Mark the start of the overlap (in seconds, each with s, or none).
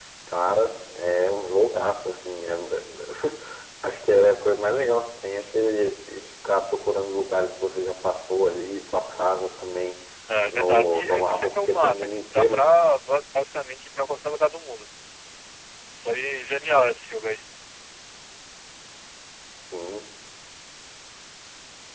10.5 s